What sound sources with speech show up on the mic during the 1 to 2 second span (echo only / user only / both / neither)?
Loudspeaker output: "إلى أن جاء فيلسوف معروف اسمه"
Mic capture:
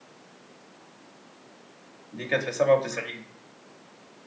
neither